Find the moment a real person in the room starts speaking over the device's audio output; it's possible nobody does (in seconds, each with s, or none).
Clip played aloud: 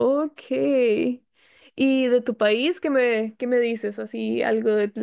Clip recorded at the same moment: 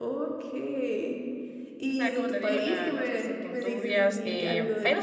1.9 s